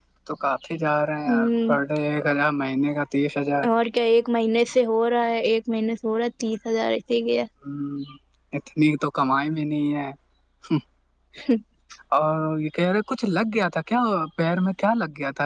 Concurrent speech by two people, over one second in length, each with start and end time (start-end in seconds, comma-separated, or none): none